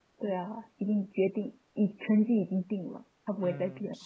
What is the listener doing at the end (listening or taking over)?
taking over